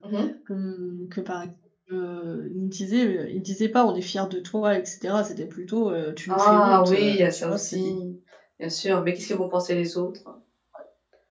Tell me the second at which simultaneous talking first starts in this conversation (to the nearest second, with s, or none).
6 s